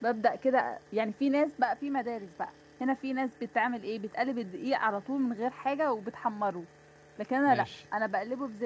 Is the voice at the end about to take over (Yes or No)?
No